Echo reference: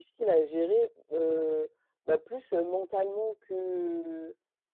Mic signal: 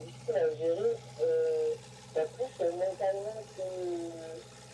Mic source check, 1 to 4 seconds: echo only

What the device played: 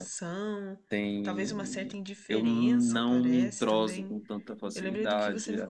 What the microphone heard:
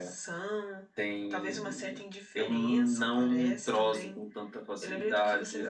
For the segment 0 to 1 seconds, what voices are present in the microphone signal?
echo only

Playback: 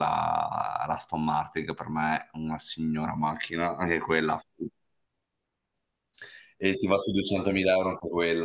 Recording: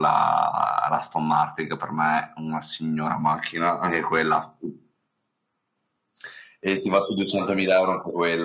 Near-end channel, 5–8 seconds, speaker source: echo only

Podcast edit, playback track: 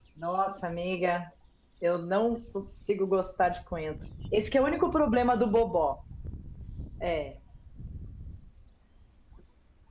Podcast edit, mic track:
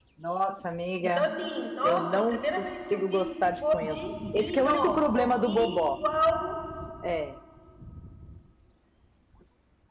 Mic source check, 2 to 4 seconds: both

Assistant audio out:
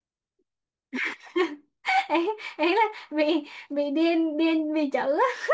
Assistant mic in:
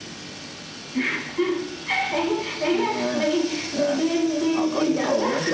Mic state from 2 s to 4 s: both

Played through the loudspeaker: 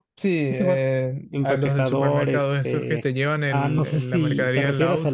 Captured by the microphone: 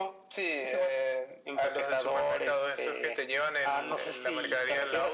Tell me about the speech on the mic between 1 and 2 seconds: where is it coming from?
echo only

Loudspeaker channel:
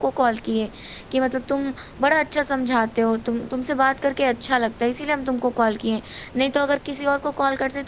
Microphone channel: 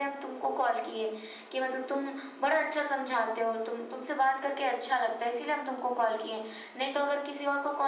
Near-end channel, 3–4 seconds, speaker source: echo only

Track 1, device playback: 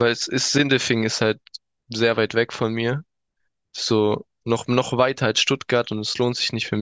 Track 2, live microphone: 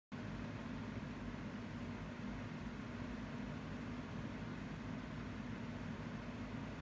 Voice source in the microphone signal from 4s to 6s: neither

